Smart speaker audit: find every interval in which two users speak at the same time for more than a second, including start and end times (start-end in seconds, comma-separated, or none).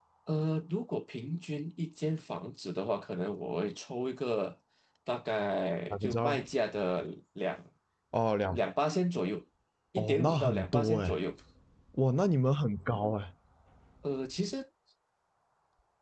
10.0-11.2